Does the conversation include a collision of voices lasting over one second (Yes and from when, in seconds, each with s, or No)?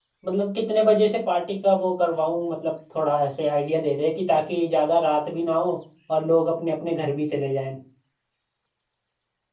No